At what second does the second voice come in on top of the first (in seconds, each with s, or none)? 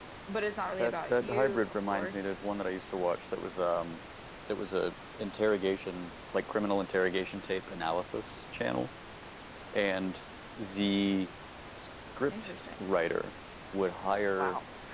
0.8 s